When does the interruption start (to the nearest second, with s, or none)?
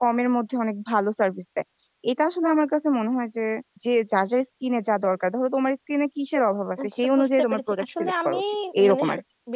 7 s